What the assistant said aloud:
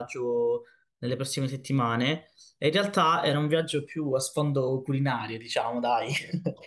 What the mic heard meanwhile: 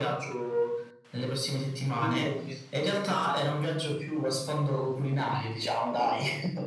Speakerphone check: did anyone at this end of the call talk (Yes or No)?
Yes